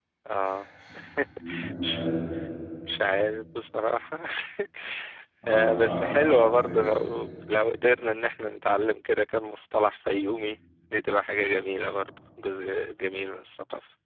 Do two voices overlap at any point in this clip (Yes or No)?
Yes